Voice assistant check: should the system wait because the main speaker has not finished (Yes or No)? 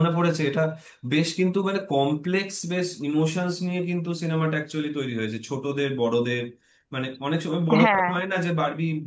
Yes